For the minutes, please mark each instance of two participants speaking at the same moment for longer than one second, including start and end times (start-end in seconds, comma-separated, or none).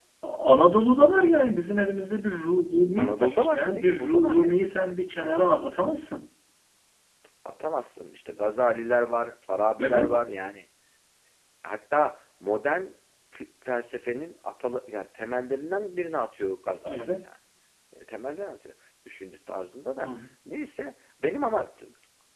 3.0-4.5